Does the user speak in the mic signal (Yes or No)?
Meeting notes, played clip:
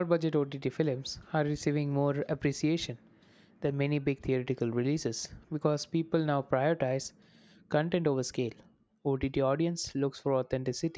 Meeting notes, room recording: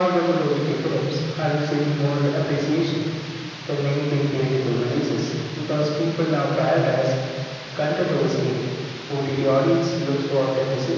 No